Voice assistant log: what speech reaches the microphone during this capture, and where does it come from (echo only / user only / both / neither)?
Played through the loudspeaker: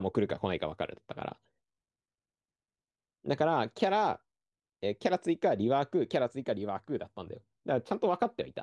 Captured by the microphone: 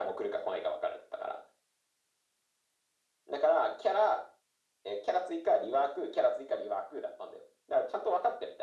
echo only